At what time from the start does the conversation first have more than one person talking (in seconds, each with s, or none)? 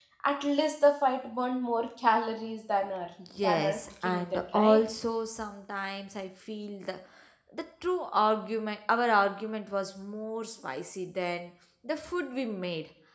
3.2 s